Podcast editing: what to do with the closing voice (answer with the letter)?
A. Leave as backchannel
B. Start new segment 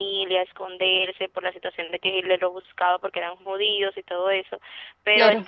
A